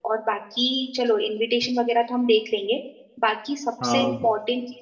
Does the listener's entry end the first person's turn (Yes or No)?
No